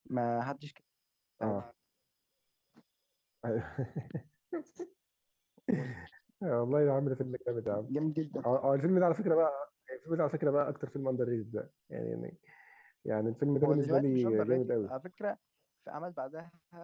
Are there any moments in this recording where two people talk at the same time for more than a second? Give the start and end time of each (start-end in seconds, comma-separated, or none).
13.6-14.9